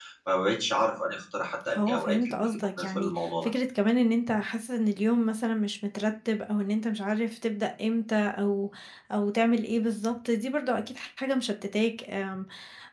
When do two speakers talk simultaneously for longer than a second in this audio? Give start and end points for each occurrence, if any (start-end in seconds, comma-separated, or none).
1.8-3.5